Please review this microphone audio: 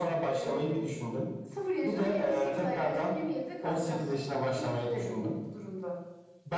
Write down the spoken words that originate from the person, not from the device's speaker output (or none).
none